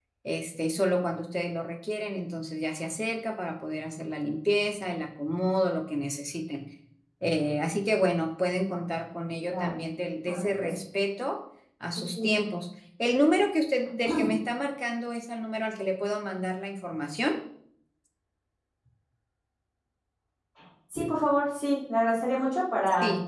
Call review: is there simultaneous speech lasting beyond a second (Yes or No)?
No